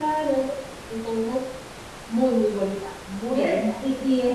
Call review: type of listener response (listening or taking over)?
taking over